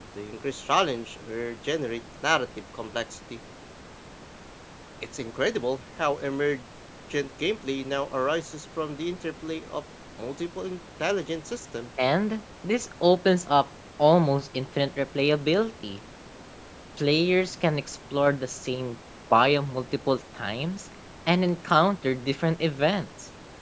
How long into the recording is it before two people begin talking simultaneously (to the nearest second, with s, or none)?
none